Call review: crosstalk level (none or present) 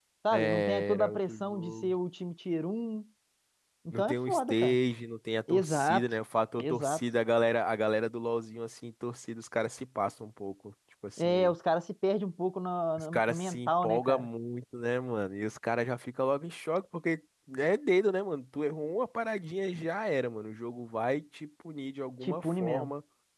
present